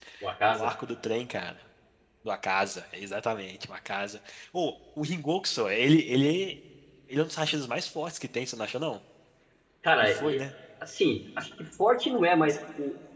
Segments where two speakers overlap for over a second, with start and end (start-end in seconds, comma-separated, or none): none